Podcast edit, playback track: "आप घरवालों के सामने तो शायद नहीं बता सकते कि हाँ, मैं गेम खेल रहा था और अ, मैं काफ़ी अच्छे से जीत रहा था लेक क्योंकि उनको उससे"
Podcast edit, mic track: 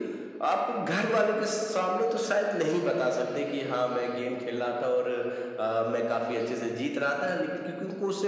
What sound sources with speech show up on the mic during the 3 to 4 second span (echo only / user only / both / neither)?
echo only